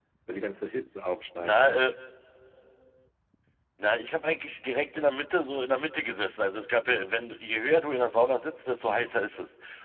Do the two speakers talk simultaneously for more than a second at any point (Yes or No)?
No